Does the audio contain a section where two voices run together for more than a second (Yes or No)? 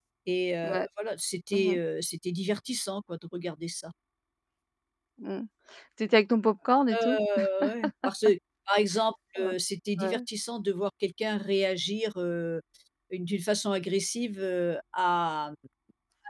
No